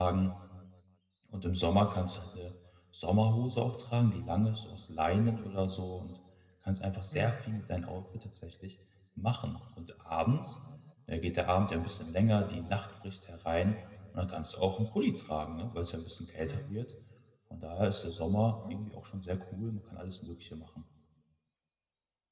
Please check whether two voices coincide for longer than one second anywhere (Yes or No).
No